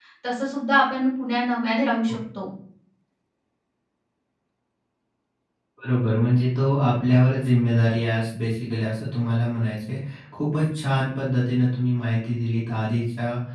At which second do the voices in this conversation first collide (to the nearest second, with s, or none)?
none